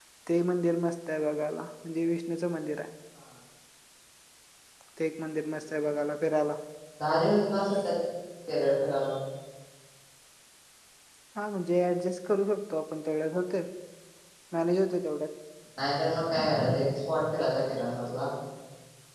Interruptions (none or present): none